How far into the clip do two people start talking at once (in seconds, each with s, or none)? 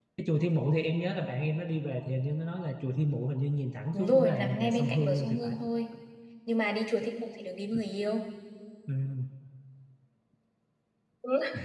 3.9 s